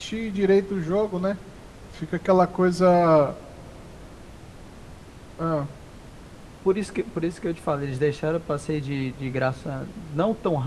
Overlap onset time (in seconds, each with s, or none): none